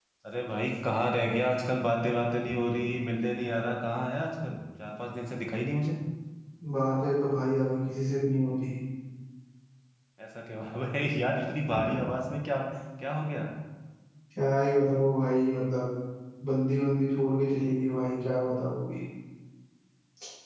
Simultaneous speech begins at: none

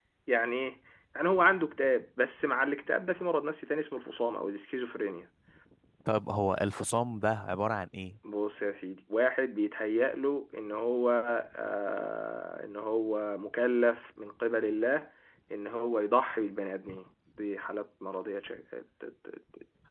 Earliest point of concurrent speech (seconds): none

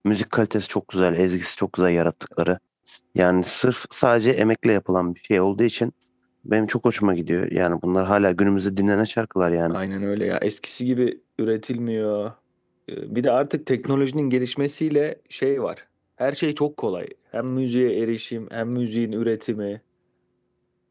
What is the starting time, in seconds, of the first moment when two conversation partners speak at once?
none

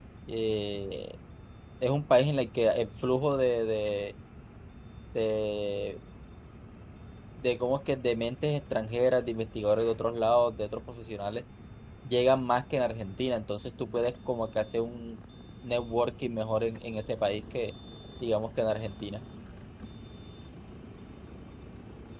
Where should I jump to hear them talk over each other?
none

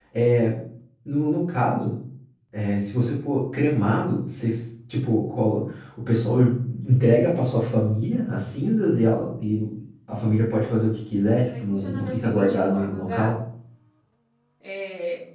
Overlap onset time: 11.5 s

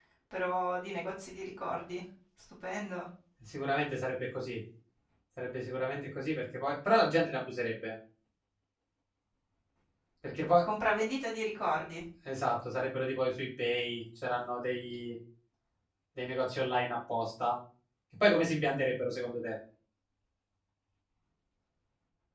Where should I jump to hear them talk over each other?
none

